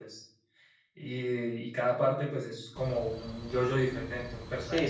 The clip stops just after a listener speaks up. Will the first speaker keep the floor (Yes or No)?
No